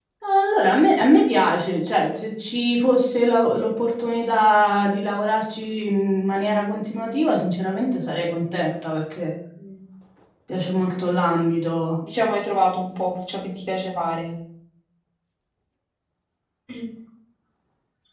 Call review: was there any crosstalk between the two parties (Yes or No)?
No